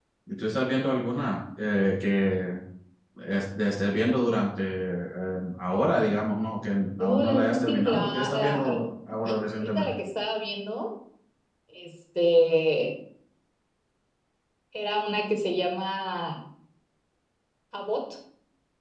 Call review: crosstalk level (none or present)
present